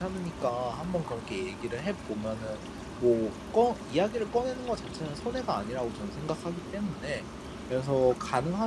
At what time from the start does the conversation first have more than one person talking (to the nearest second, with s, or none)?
none